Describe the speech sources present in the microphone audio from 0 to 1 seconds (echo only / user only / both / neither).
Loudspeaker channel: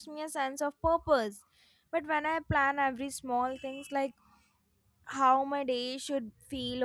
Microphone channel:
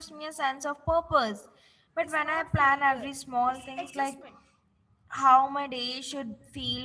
echo only